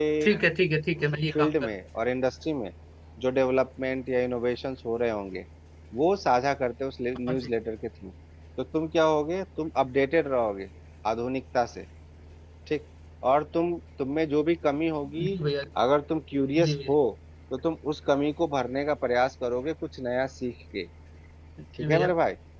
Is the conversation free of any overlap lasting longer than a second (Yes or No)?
Yes